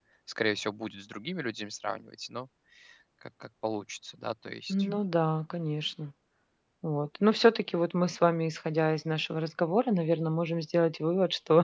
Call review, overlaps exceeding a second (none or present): none